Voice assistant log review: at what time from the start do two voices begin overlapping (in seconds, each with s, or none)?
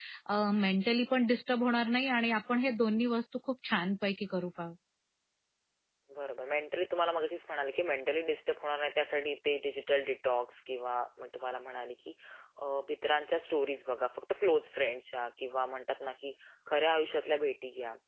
none